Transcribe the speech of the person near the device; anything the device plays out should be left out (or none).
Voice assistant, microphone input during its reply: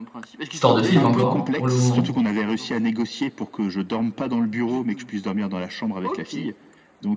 Histoire de film encore, pour le moment.